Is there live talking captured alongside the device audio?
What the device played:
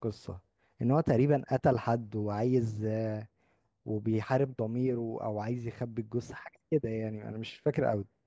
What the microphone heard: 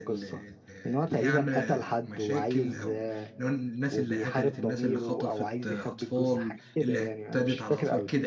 Yes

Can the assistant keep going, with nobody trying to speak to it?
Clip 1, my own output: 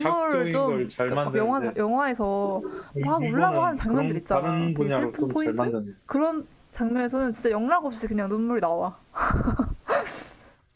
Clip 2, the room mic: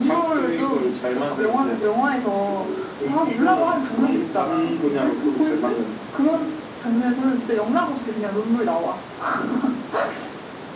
Yes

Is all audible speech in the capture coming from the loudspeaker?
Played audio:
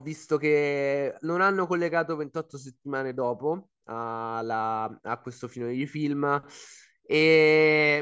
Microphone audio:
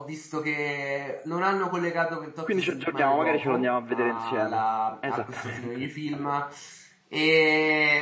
No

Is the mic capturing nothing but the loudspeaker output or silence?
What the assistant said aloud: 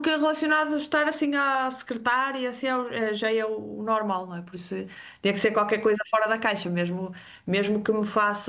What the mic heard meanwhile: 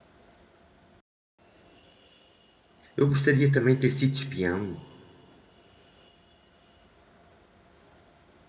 No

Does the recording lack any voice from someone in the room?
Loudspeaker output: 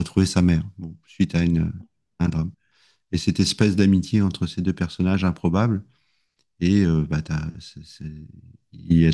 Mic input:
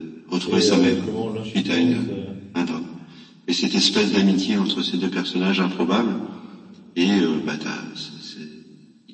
No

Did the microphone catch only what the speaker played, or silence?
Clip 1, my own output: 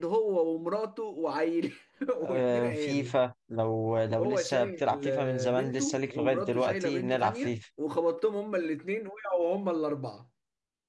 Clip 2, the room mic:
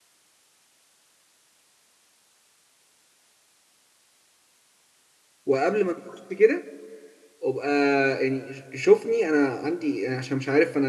No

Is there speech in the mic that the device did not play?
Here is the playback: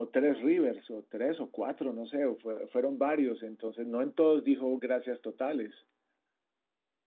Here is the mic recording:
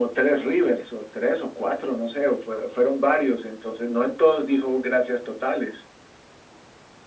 No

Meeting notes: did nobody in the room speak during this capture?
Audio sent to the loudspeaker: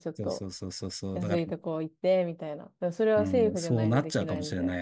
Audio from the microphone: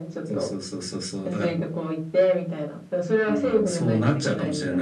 Yes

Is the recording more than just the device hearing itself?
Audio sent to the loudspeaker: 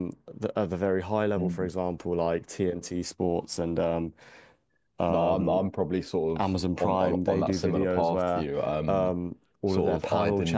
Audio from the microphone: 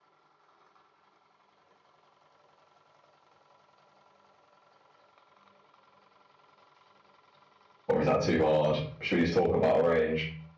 Yes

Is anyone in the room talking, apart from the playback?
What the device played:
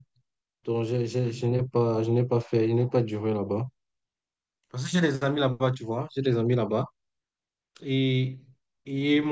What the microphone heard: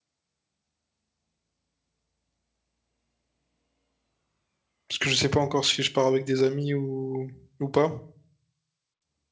Yes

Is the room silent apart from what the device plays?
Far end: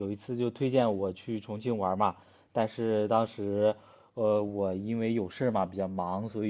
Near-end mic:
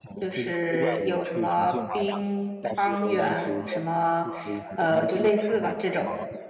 No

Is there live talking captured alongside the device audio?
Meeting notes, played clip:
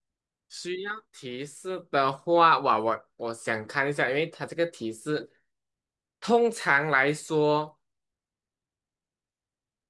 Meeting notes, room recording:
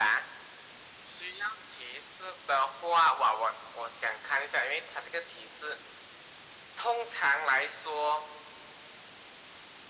No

